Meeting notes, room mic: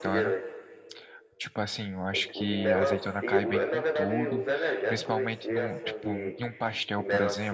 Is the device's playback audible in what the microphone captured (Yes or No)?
Yes